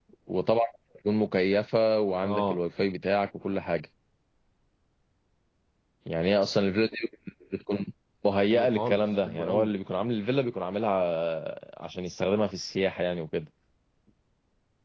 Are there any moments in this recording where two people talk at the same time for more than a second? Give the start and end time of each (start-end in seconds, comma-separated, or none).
8.5-9.7